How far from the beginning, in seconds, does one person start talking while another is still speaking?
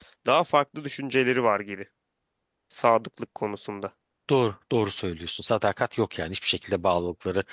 none

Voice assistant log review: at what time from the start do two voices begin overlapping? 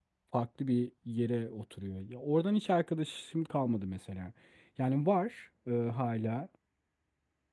none

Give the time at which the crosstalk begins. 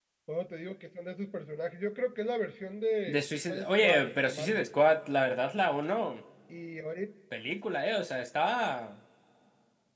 3 s

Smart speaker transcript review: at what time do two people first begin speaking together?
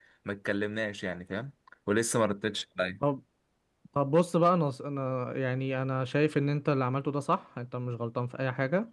none

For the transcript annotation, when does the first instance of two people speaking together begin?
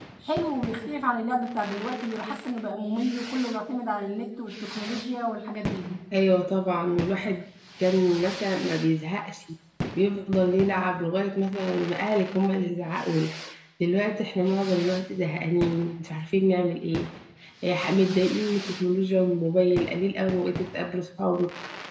none

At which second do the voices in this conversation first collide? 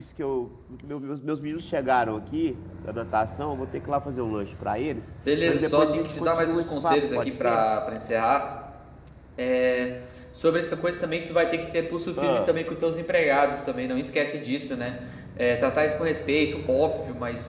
5 s

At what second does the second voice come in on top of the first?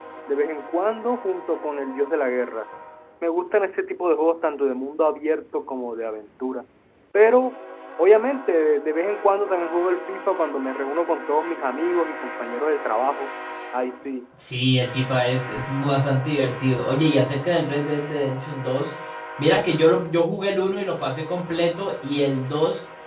none

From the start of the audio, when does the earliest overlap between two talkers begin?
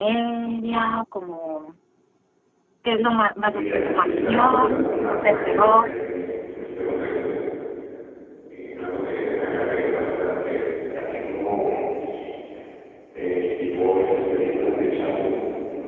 4 s

